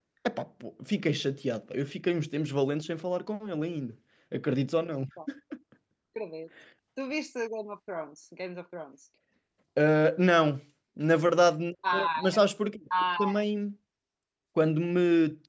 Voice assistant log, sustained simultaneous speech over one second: none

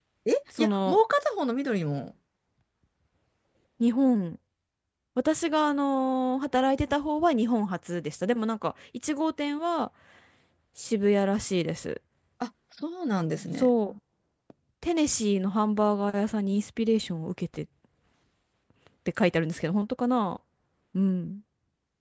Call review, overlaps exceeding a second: none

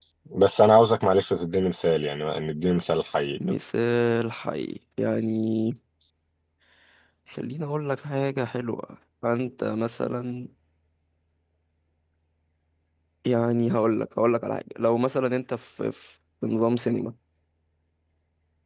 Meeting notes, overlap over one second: none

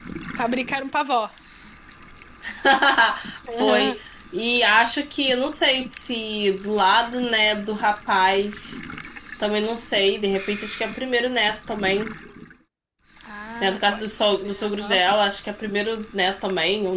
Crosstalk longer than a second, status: present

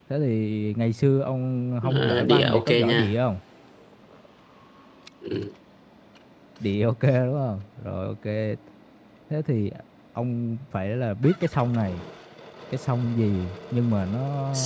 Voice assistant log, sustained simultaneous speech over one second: present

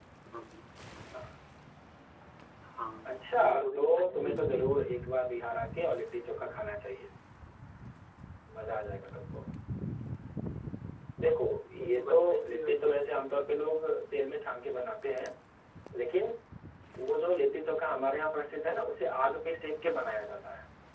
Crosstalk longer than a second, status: present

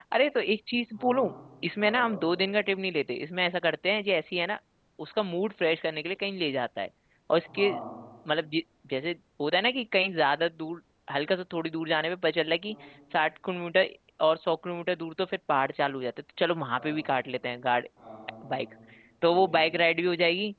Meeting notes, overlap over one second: none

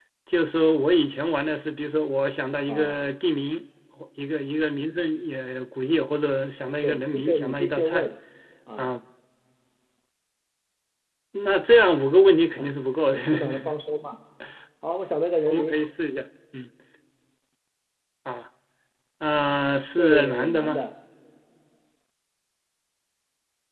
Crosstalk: present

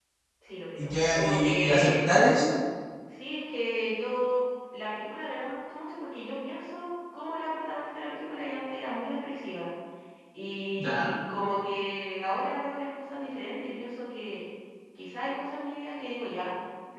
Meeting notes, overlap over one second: present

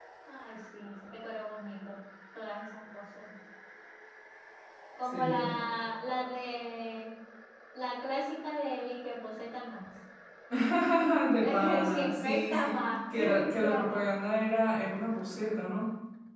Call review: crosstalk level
present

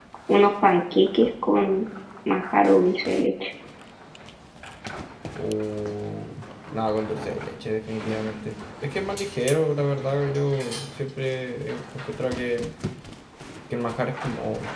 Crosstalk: none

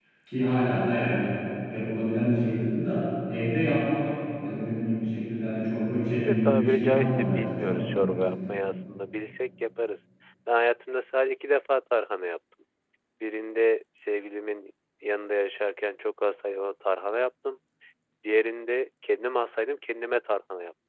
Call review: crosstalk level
present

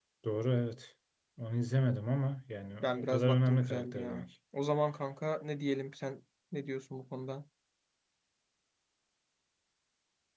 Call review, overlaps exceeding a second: present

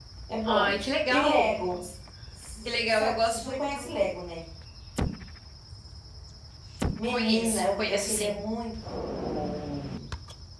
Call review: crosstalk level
present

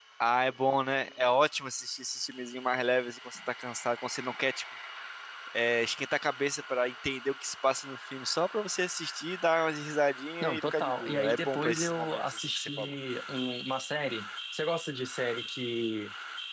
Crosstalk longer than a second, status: present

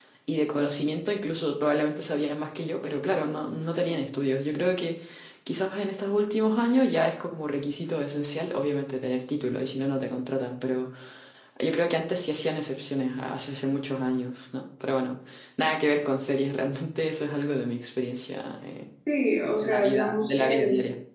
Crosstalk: present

